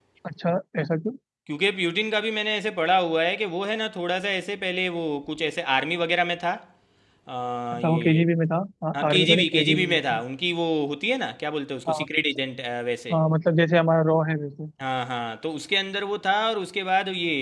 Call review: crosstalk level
present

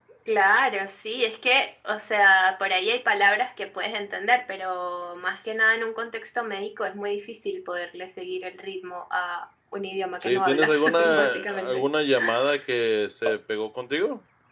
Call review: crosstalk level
present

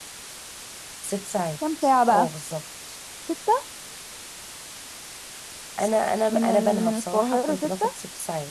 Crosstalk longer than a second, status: present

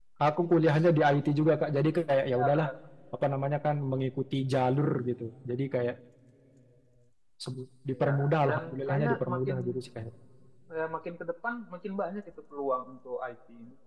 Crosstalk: present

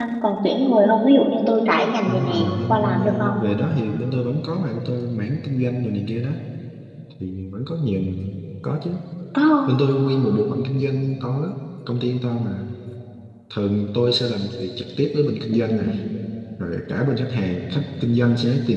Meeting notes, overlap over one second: present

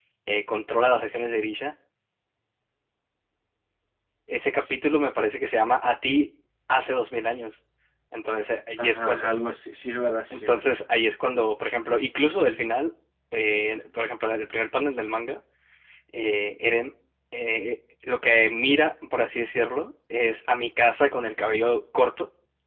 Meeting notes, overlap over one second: none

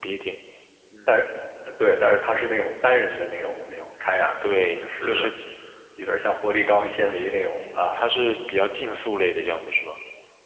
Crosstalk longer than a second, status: none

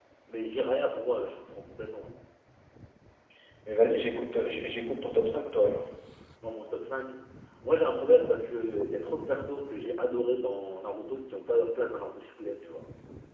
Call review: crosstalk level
none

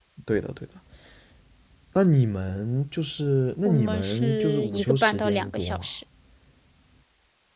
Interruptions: present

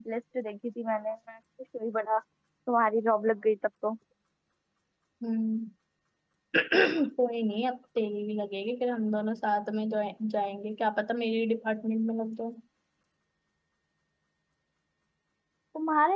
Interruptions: none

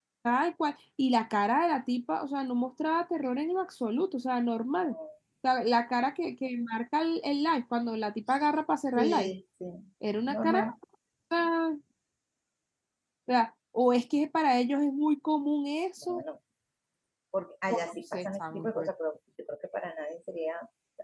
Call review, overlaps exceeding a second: present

